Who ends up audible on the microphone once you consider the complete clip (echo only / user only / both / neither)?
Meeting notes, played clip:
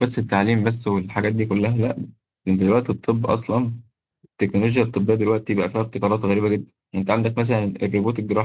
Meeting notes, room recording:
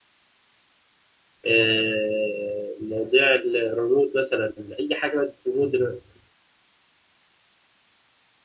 user only